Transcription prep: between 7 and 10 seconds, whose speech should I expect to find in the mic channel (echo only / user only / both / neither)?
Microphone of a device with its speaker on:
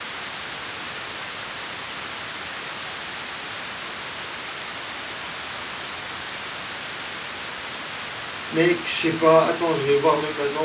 user only